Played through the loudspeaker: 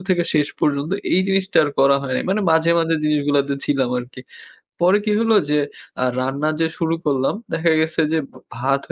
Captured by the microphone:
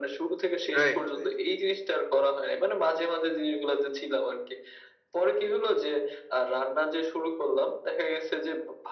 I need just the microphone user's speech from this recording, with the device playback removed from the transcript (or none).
রাইট, রাইট।